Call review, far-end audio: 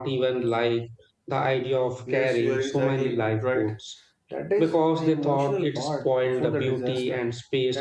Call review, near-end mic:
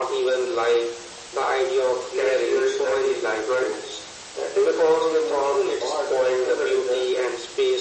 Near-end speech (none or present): none